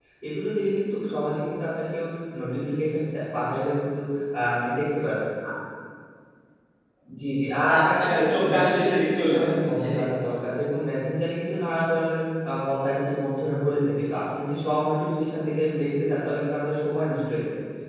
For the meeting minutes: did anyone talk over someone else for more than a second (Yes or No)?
Yes